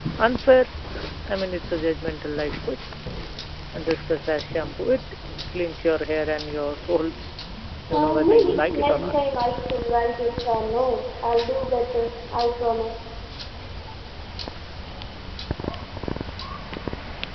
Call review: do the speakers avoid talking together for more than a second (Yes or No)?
No